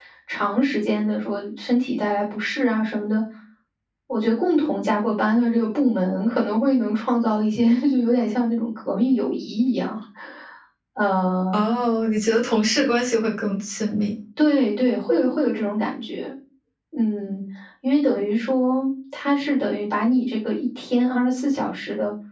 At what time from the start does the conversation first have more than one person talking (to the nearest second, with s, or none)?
none